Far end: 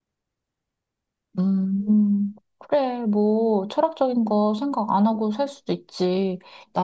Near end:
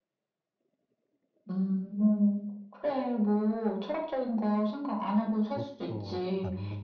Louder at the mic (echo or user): echo